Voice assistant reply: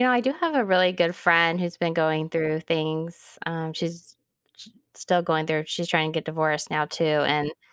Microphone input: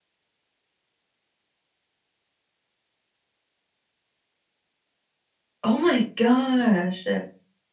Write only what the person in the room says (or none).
Oh my gosh.